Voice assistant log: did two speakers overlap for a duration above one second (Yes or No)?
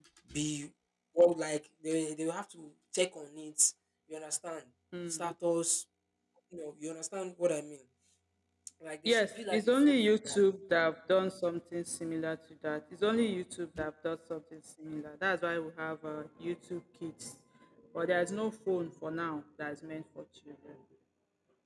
Yes